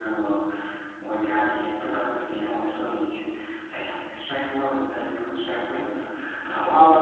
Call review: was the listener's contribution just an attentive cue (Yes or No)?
No